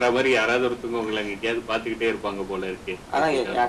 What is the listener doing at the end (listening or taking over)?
taking over